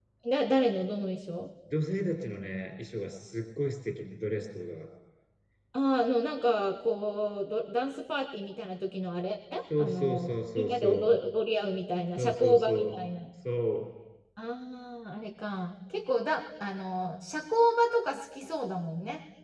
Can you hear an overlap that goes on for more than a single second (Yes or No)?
Yes